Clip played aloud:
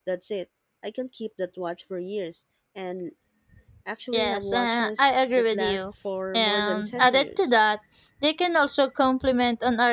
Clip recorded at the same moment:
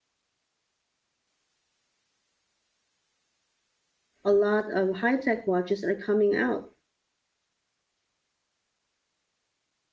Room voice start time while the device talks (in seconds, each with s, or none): 4.2 s